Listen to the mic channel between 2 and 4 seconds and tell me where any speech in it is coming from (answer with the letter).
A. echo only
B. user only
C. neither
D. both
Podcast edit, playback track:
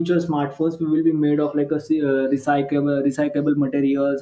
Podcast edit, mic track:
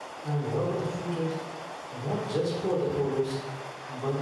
B